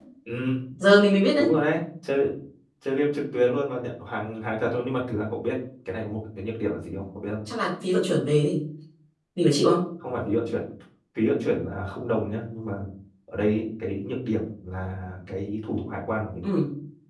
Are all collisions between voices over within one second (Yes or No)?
Yes